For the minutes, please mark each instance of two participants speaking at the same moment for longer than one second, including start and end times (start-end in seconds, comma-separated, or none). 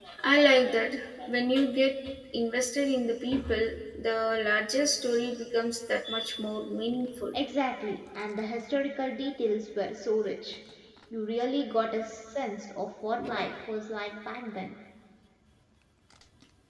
none